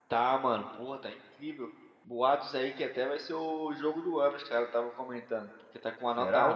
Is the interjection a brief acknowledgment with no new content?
Yes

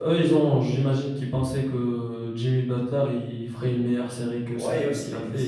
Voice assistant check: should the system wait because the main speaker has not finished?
No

